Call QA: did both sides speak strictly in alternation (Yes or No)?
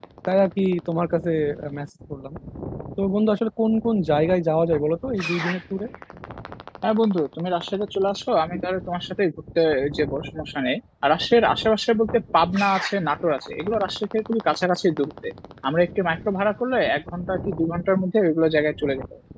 Yes